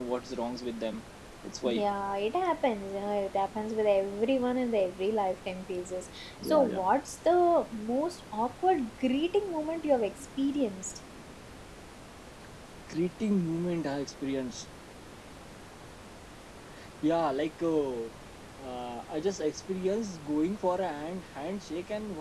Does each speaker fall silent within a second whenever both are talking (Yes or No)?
Yes